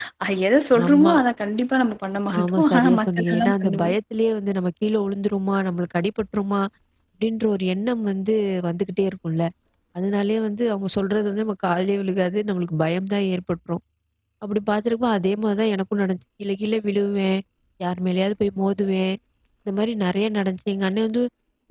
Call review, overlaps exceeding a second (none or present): present